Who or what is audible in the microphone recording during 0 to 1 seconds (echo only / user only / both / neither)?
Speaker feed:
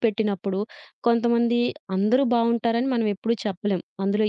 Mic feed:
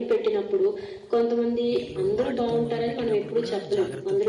echo only